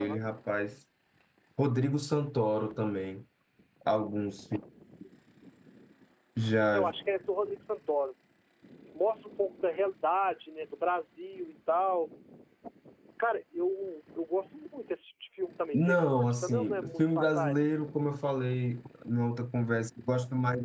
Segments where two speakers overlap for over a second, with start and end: 15.7-17.6

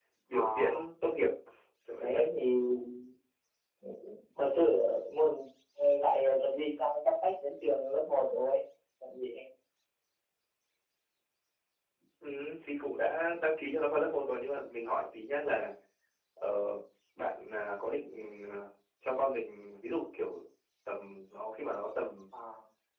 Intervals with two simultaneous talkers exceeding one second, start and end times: none

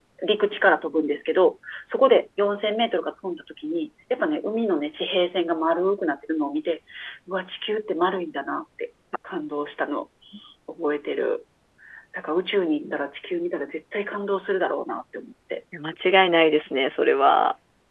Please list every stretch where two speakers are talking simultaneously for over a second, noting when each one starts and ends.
none

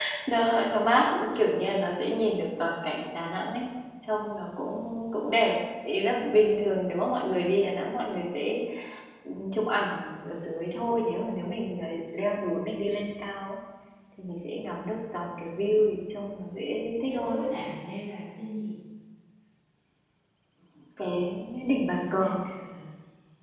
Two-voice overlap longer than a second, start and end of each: none

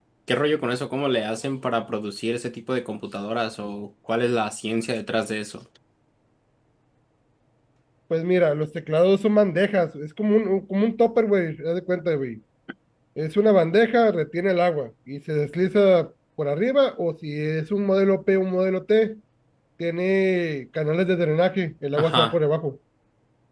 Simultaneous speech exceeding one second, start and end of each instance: none

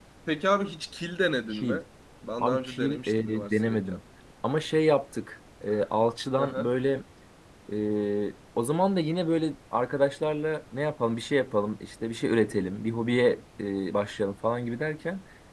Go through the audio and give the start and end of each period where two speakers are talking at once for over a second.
2.4-4.0

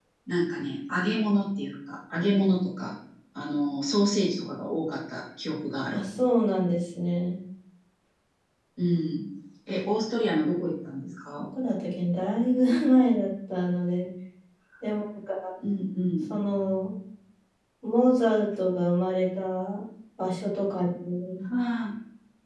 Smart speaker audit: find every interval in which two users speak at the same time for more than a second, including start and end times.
none

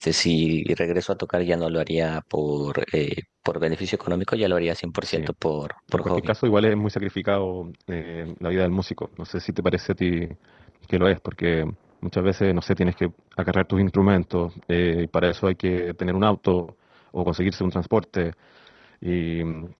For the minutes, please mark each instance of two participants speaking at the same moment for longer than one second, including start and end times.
none

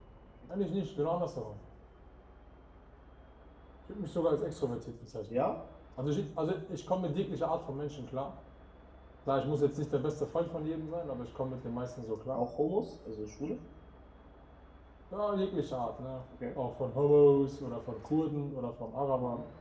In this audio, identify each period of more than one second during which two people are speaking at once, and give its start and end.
none

